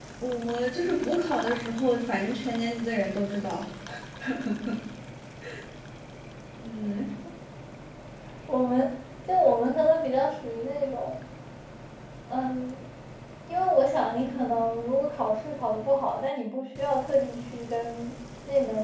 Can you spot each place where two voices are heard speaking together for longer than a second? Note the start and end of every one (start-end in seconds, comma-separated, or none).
none